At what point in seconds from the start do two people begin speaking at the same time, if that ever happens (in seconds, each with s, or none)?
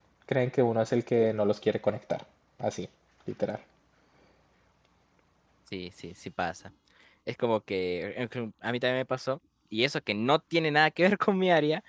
none